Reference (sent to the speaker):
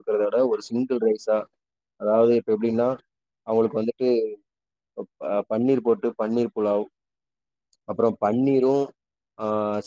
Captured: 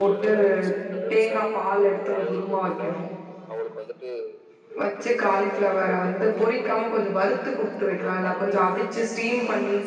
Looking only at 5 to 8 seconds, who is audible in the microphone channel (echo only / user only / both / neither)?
both